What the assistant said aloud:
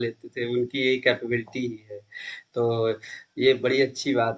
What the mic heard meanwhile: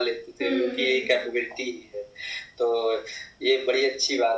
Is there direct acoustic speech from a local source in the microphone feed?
Yes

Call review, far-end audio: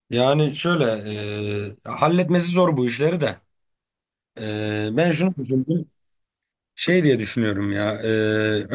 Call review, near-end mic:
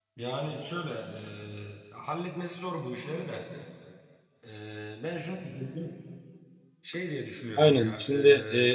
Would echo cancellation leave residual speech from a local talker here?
Yes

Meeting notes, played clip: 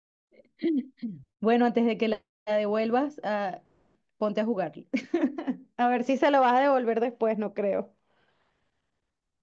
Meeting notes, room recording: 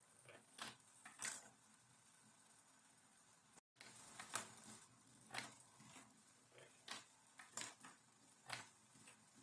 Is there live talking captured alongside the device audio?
No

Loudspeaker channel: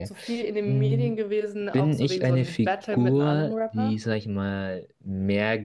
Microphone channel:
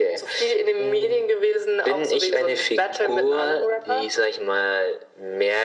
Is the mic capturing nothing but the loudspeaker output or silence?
Yes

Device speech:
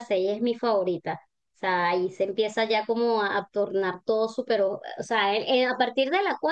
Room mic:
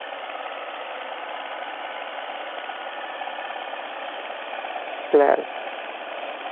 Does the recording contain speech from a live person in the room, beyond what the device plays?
Yes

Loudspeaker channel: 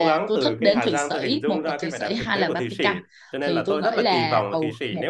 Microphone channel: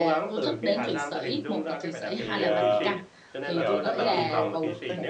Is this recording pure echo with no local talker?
No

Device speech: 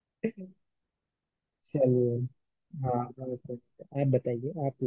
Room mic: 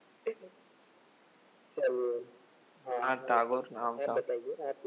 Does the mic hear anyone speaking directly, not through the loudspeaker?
Yes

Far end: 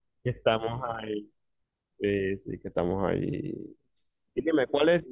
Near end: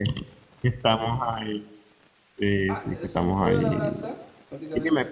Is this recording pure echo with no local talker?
No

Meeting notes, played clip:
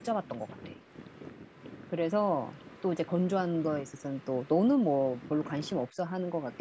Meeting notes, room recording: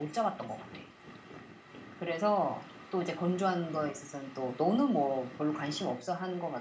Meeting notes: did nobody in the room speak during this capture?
Yes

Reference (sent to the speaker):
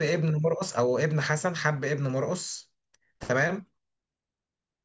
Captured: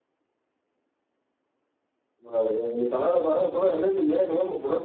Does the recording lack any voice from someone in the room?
No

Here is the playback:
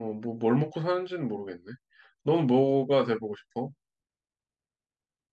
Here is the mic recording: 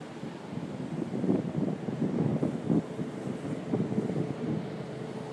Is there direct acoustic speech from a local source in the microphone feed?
No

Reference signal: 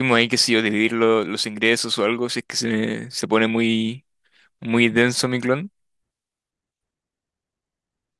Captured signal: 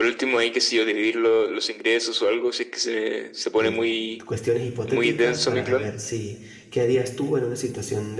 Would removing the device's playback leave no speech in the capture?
No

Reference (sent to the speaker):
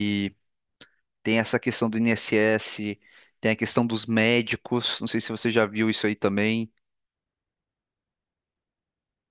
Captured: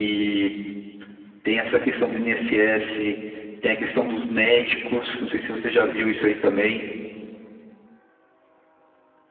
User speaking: No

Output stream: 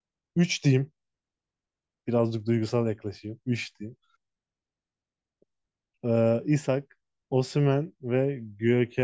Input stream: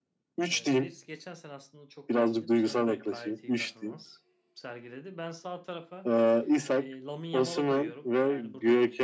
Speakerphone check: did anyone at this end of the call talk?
Yes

